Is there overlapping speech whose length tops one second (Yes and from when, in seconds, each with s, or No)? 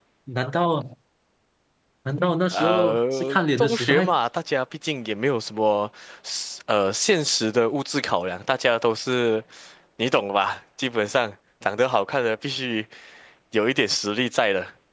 Yes, from 2.5 s